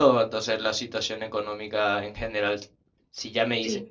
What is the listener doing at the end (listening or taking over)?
listening